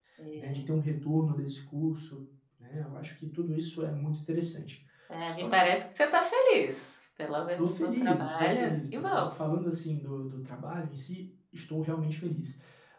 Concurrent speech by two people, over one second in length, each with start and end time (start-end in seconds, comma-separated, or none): 7.6-9.3